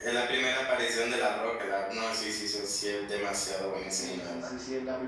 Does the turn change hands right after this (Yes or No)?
Yes